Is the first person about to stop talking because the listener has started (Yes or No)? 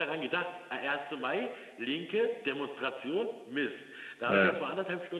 No